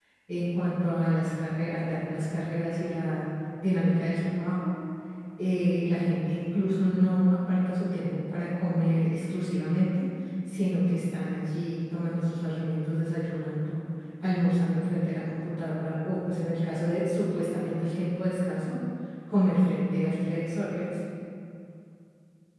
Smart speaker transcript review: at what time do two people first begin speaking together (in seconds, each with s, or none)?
none